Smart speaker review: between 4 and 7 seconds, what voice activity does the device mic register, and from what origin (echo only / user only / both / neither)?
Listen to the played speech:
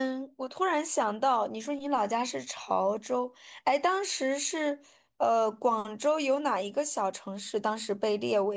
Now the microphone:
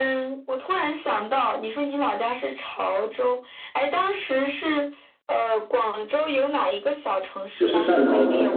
echo only